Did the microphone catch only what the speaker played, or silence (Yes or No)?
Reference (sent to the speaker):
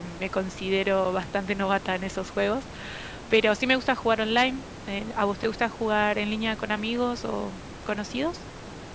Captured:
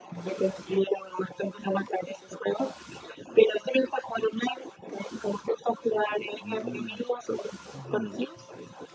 No